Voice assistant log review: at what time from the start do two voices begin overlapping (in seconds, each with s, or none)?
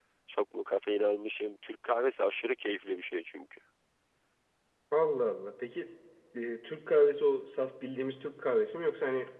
none